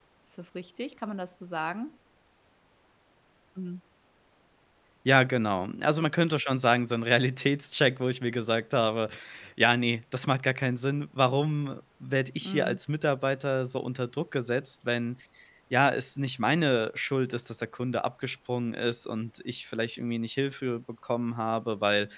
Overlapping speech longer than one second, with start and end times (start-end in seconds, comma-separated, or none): none